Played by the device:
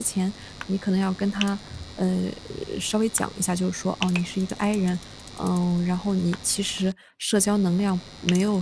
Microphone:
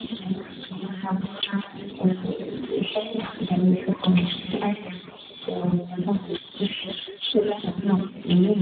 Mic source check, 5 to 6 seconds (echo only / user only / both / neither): echo only